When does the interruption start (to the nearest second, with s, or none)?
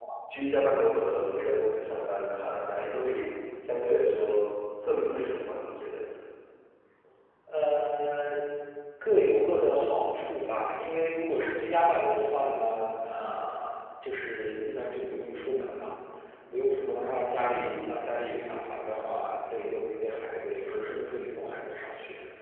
none